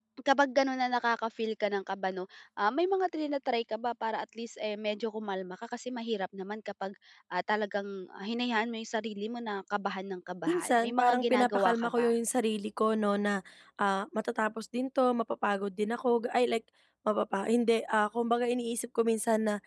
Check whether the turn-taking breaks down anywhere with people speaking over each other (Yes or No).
Yes